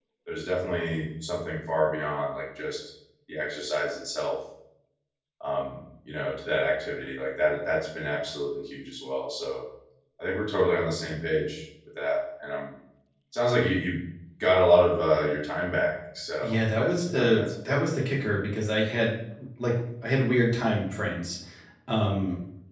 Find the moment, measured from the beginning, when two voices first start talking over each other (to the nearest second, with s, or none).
16 s